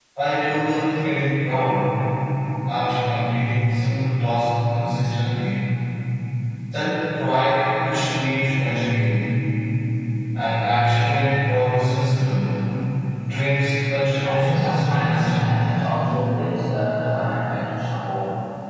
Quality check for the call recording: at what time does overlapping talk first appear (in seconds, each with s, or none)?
14.1 s